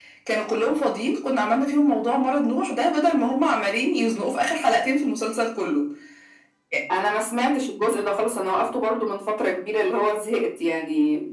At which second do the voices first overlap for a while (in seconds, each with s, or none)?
none